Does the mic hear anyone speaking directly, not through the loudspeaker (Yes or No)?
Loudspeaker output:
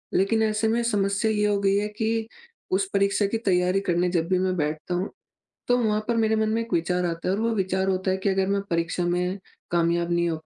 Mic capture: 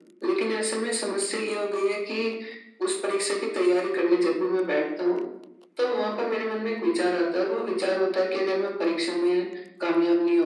No